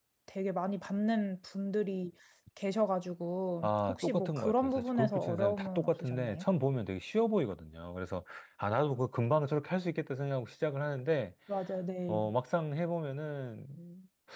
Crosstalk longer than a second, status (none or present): present